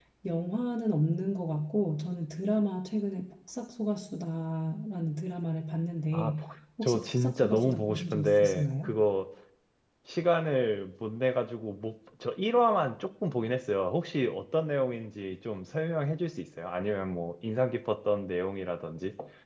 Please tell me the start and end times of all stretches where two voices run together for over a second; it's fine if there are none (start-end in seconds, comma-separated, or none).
6.8-8.9